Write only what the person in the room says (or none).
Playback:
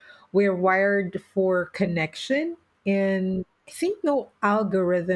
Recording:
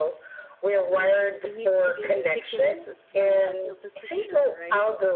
yes. You need to be meticulous as well as a physician, right?